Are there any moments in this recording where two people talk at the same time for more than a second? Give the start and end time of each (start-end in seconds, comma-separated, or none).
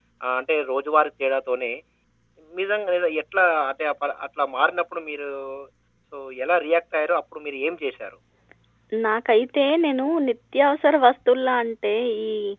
none